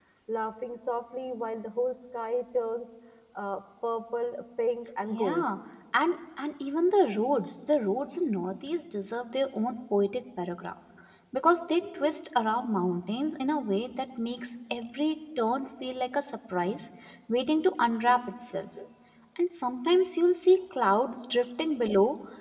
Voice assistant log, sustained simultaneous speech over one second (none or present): none